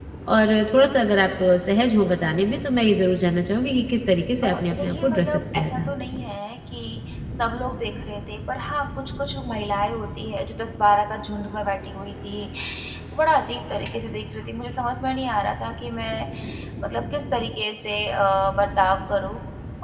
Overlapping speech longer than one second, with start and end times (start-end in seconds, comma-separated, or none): 4.4-5.9